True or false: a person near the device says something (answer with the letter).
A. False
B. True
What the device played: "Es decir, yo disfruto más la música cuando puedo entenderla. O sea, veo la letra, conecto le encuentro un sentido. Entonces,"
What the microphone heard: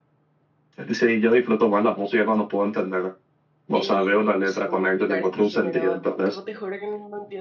B